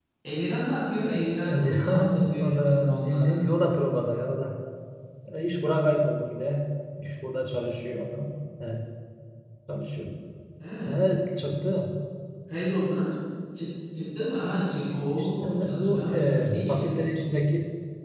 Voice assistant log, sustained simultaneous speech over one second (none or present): present